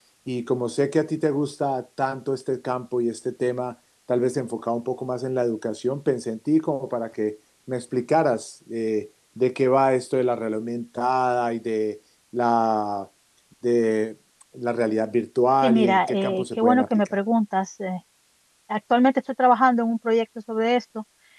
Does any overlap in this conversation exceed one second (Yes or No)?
Yes